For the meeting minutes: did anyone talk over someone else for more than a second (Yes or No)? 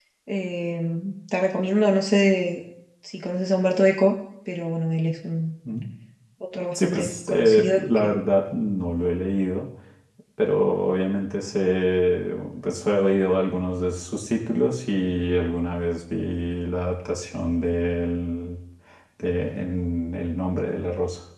Yes